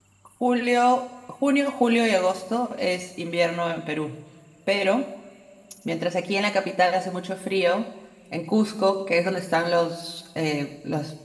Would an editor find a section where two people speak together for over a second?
No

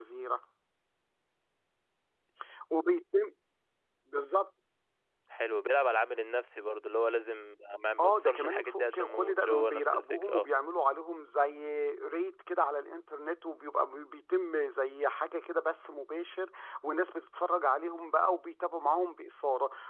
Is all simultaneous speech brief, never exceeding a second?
No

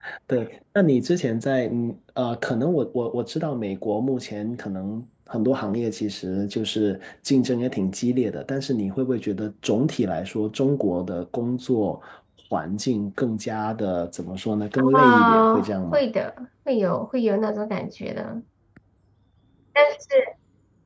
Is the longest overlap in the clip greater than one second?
Yes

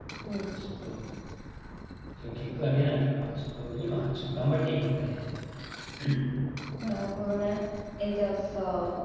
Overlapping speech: No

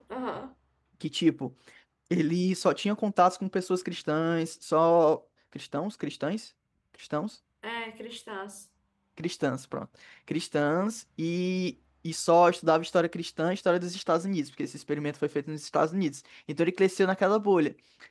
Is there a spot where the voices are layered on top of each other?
No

